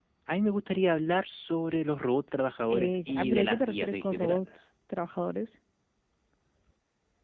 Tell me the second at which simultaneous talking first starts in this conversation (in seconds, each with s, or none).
2.7 s